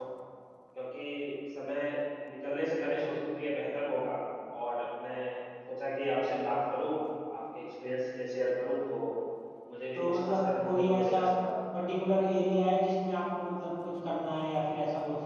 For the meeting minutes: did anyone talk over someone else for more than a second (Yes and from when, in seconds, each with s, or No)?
Yes, from 9.9 s